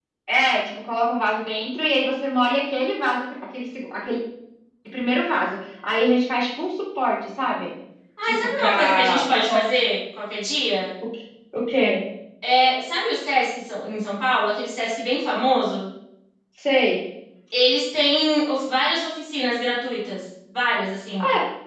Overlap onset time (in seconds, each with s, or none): 8.2 s